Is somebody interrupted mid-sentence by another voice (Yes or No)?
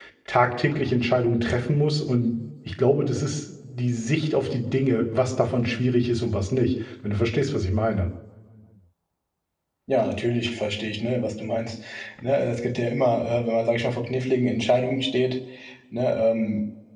No